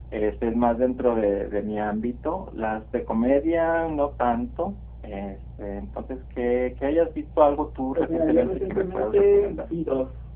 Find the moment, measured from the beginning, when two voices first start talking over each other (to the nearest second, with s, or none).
8 s